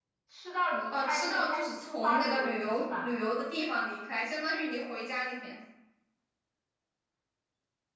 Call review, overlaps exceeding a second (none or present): present